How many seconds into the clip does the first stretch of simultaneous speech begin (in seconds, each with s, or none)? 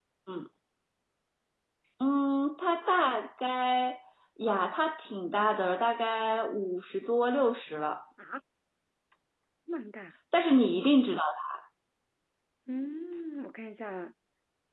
none